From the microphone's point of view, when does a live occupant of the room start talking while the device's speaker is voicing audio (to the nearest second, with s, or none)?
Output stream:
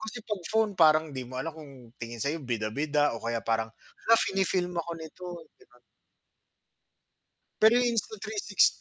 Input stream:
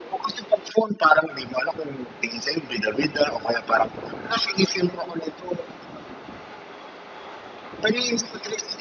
none